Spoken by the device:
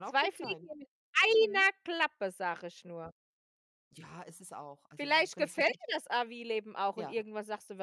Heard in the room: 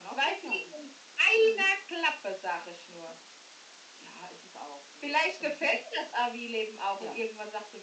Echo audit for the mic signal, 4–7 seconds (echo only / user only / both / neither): echo only